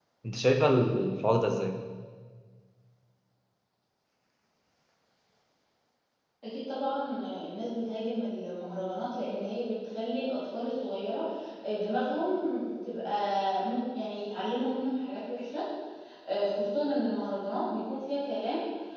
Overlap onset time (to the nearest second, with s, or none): none